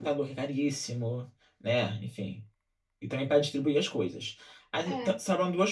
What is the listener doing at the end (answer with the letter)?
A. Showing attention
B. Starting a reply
A